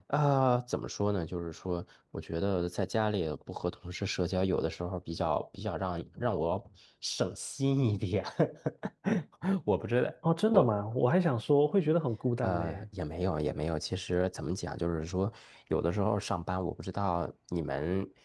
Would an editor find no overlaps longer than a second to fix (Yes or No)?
Yes